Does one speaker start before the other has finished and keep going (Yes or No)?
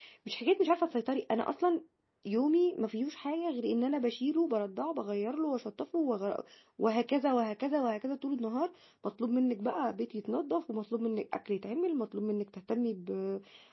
No